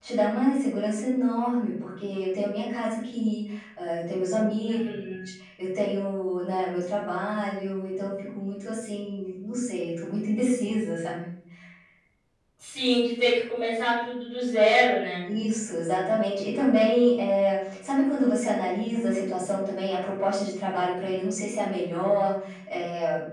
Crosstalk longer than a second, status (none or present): none